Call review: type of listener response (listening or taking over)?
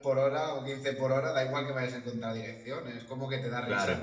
listening